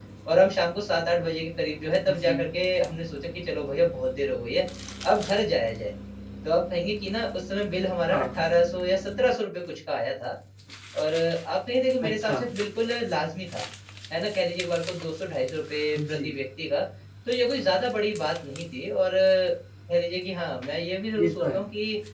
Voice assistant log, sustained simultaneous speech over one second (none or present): none